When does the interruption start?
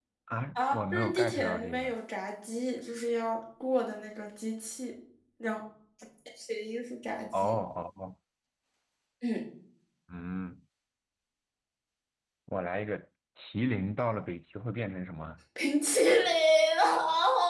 0.6 s

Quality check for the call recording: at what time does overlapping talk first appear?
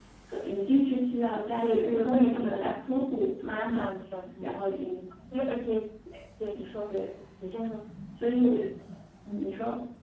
1.6 s

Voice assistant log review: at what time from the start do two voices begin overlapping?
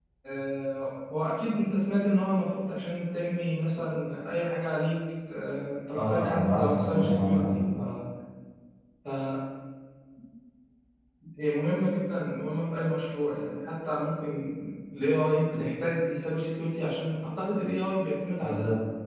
6.0 s

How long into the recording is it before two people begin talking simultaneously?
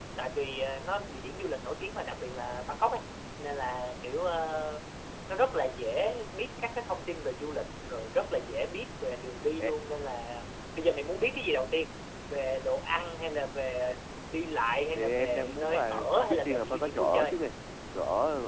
14.9 s

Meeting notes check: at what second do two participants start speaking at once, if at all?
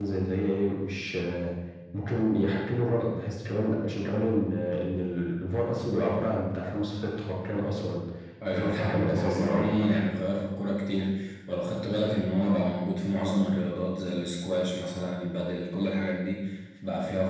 8.5 s

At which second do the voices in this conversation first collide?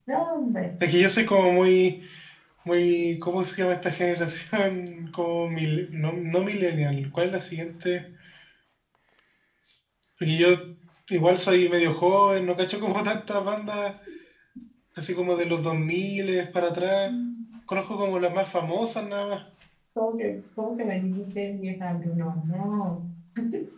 none

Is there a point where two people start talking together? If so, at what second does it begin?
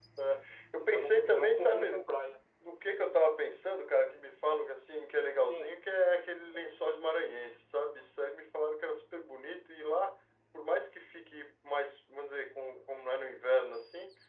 0.8 s

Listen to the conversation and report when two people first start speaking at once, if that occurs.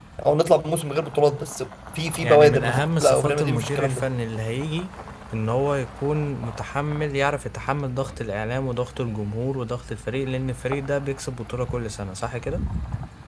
2.2 s

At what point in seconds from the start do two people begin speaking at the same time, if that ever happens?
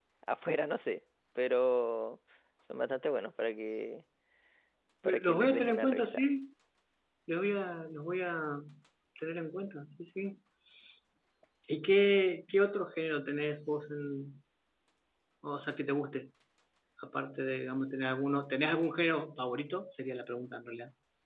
5.0 s

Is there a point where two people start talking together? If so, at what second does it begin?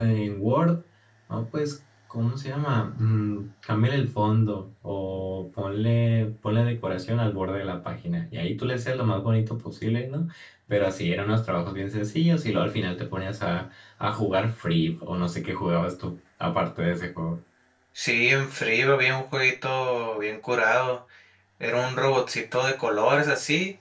none

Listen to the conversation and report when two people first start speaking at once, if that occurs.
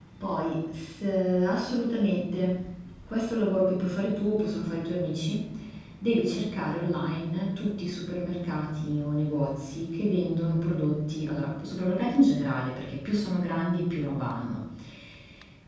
none

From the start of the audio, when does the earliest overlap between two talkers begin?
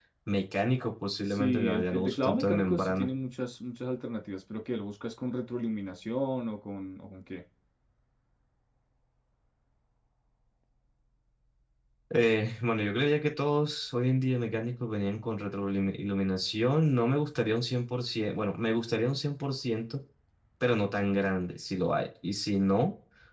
1.3 s

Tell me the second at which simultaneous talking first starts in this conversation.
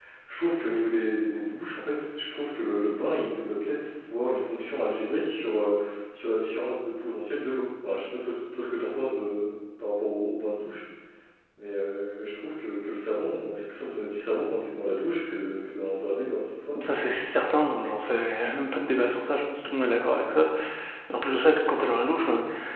none

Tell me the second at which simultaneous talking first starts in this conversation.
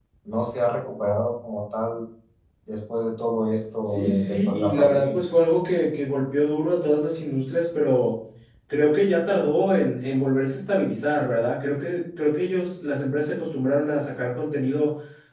3.9 s

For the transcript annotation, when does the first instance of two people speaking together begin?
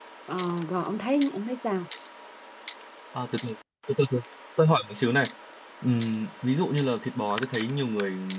none

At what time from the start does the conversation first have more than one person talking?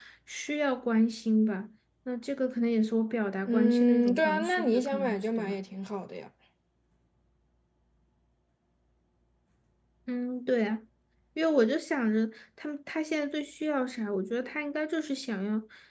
3.5 s

